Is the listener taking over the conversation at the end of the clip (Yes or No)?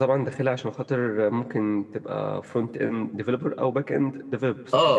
Yes